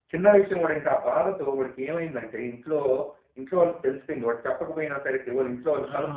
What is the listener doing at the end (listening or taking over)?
taking over